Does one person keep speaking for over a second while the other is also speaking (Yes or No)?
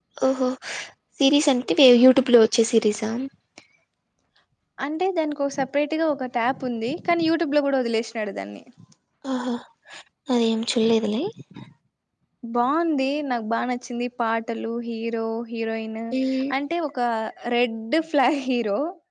No